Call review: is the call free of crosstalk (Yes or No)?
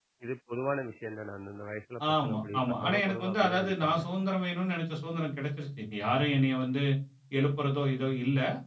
No